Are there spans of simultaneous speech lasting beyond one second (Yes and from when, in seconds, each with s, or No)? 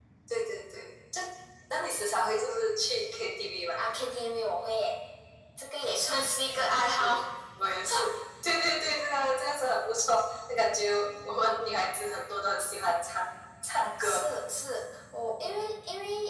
No